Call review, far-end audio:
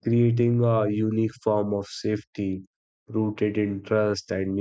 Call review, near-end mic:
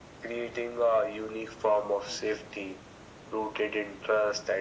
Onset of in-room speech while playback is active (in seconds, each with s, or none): none